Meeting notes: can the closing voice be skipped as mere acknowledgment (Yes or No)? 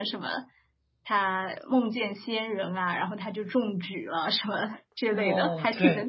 No